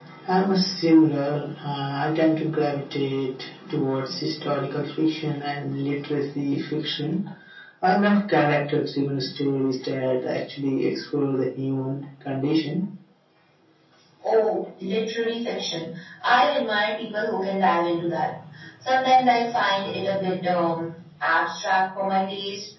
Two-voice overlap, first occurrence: none

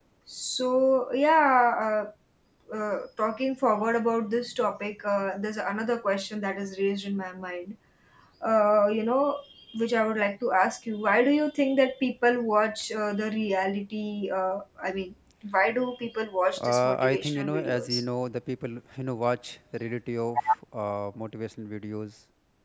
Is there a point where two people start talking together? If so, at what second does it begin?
16.6 s

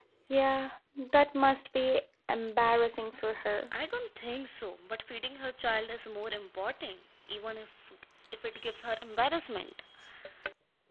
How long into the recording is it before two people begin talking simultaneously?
none

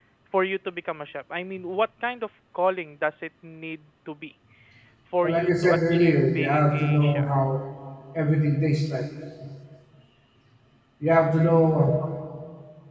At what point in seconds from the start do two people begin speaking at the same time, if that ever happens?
5.2 s

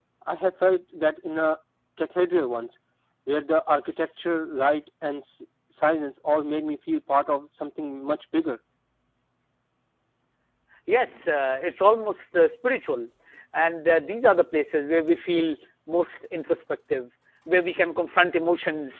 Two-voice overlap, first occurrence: none

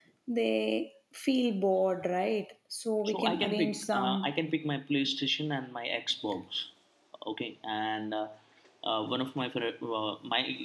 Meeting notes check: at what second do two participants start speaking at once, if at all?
3.0 s

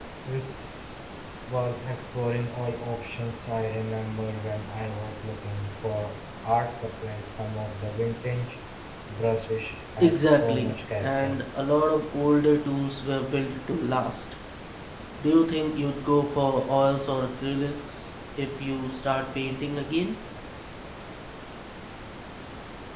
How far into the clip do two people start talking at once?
10.0 s

